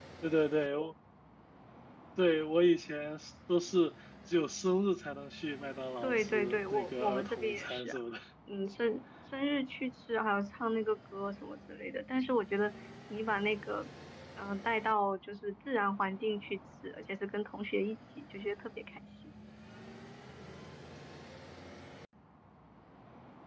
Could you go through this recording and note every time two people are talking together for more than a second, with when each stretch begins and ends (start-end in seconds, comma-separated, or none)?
6.0-8.0